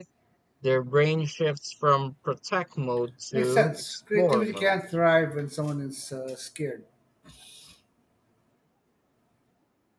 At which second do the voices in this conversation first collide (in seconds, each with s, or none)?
3.3 s